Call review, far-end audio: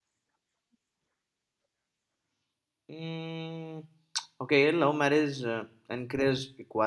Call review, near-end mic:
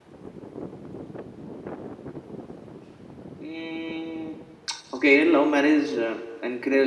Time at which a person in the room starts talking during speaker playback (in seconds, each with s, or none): none